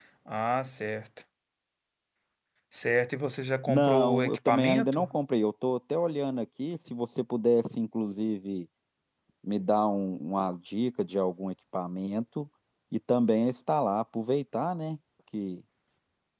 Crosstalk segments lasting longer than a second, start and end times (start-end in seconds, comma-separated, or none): 3.7-5.1